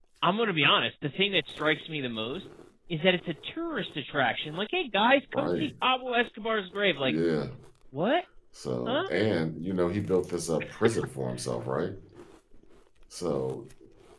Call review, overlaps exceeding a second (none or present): none